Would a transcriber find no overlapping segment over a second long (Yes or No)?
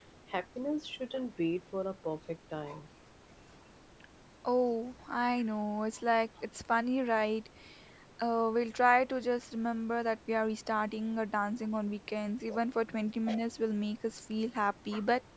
Yes